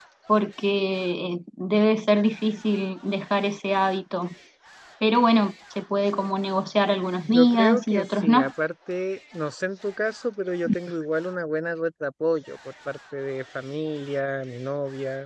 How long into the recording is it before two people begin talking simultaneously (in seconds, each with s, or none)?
7.2 s